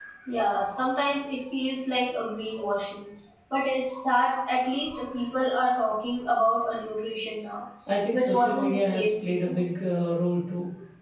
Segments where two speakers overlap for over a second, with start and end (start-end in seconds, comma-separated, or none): 8.1-9.6